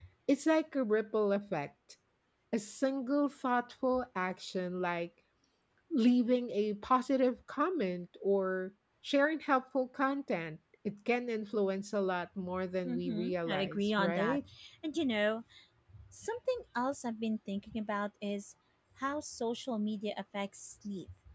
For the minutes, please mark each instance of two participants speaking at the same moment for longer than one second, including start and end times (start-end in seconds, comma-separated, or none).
12.8-14.4